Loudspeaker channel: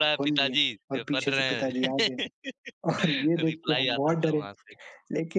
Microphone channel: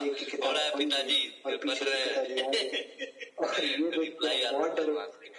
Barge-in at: none

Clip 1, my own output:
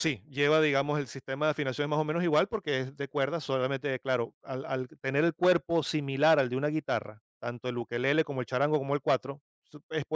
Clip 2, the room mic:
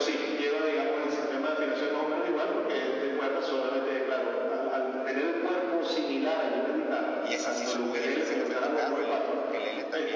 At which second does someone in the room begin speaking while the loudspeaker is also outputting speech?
7 s

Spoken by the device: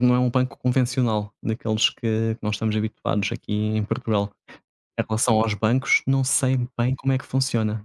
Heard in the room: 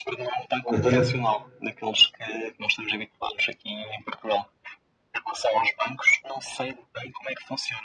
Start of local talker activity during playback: 1 s

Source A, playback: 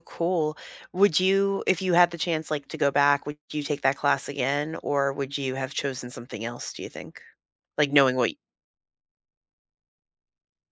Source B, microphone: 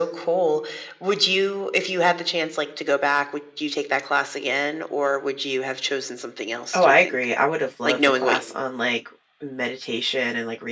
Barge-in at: 7 s

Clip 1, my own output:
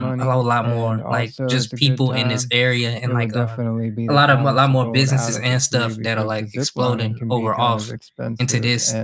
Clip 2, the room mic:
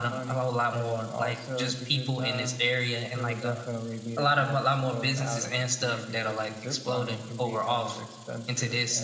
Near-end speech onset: none

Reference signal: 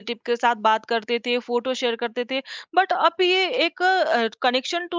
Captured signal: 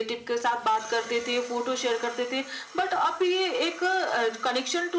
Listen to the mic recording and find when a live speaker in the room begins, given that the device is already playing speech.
none

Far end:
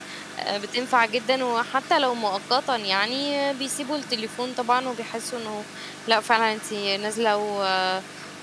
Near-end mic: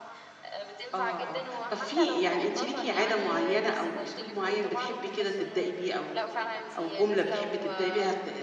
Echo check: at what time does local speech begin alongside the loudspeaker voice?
1 s

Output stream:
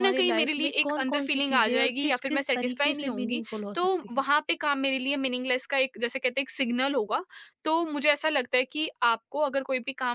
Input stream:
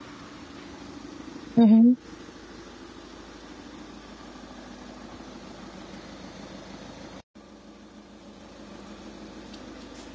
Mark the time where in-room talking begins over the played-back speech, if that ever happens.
2 s

